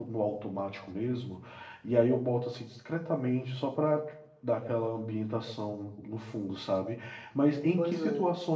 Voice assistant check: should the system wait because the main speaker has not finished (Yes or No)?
Yes